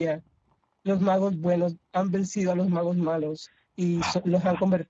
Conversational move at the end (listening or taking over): listening